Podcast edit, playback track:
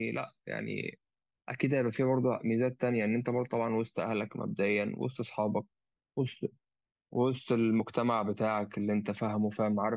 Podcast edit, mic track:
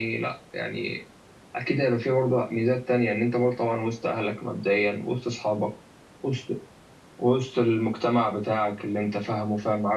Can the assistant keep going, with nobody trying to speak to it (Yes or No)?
Yes